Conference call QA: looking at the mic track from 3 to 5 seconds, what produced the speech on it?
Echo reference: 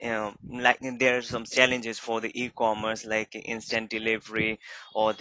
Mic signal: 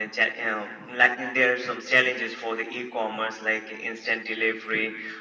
echo only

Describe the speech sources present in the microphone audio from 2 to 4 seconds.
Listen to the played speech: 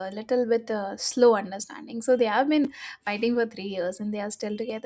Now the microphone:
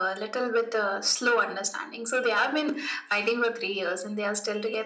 echo only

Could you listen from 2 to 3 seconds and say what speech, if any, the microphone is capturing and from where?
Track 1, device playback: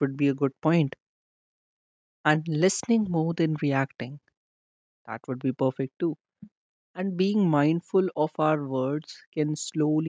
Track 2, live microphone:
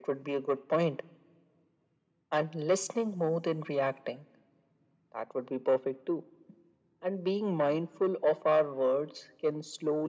echo only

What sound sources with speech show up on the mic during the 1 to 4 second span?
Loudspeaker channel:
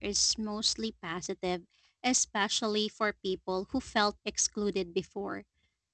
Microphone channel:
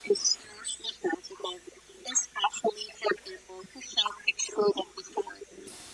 echo only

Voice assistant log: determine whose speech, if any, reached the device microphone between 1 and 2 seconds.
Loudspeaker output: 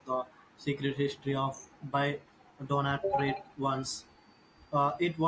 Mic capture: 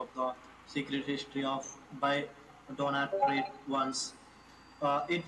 echo only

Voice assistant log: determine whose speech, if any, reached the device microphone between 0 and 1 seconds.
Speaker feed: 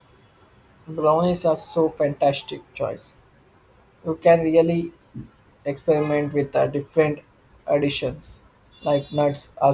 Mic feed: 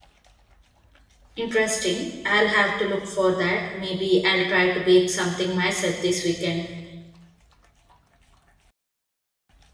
neither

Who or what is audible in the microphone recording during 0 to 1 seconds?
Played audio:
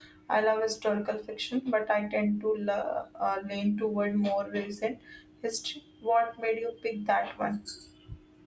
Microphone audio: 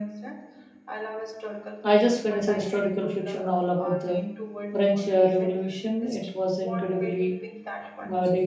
echo only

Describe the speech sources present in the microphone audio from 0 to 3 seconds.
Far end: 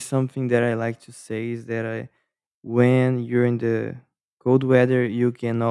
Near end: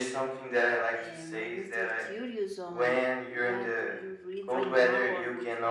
both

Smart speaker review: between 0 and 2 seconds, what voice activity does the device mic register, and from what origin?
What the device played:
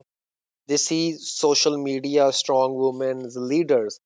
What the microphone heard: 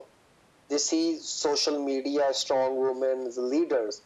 echo only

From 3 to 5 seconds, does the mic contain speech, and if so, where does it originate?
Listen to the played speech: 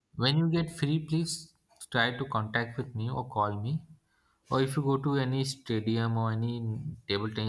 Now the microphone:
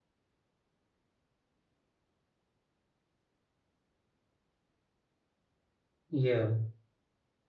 neither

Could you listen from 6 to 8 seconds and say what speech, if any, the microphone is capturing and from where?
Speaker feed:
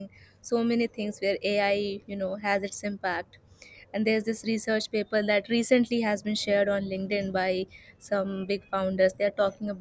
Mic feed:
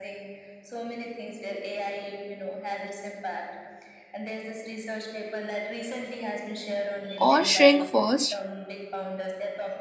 both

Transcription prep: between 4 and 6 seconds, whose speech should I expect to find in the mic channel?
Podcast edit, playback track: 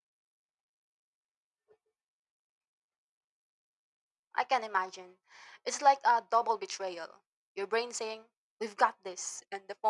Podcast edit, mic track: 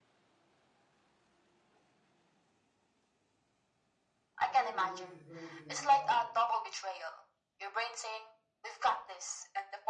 both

